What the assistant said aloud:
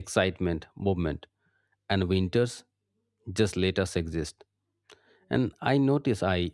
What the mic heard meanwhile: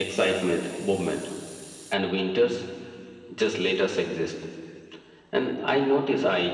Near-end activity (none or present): none